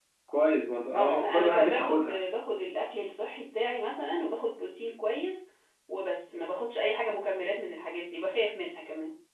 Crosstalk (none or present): present